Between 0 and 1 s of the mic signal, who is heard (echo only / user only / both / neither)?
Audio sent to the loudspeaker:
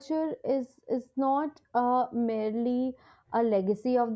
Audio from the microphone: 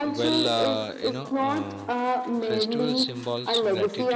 both